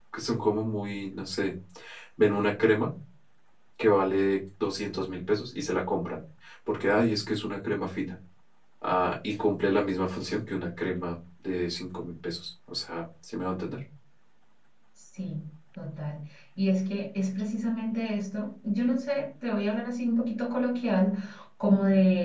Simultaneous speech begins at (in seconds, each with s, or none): none